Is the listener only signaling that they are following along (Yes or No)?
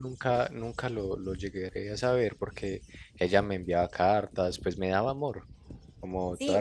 No